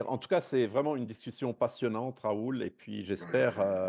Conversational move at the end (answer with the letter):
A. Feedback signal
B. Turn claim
A